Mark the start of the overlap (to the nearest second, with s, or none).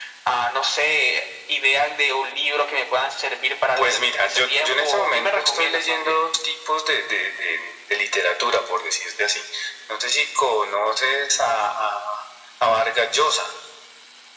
4 s